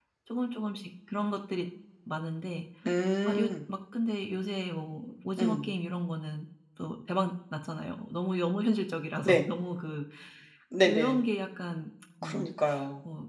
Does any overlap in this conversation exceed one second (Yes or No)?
No